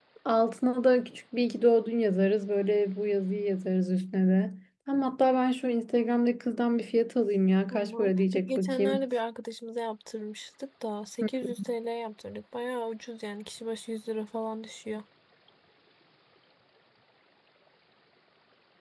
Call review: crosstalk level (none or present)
present